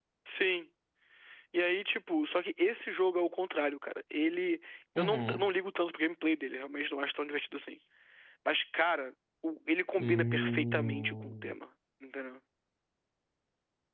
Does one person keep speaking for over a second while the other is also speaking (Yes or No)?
Yes